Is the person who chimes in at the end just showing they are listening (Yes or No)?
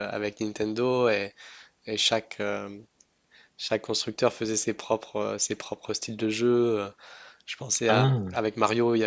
Yes